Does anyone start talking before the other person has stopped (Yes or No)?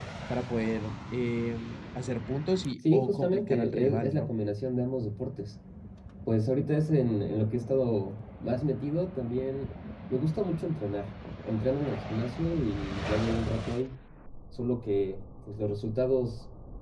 Yes